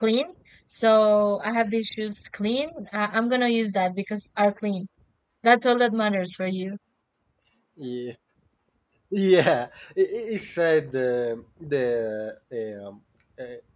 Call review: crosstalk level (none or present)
none